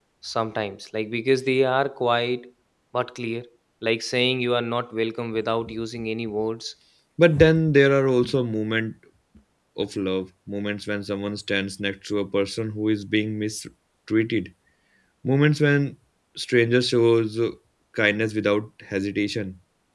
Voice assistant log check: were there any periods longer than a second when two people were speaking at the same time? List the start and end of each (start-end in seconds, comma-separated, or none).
none